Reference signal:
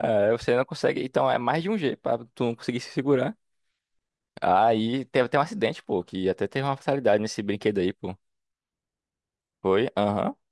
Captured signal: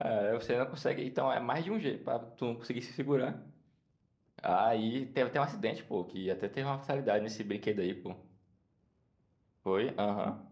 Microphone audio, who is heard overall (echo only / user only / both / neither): echo only